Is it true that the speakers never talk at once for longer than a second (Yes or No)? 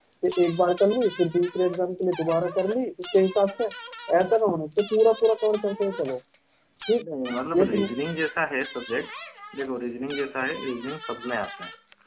Yes